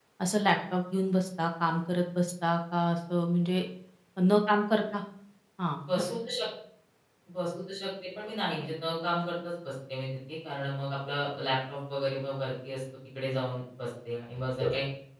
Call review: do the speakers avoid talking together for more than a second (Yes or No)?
Yes